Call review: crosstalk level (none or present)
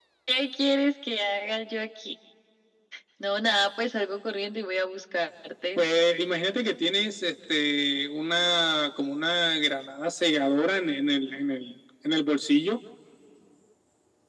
none